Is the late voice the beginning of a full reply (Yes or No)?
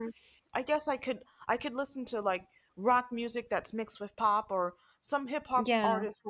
No